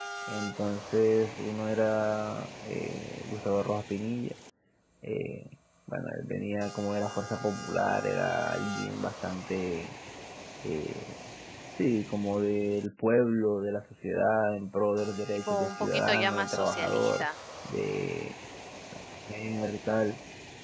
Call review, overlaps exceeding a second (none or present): present